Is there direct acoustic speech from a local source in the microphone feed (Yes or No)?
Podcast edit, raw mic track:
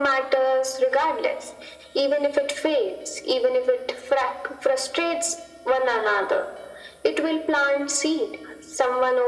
No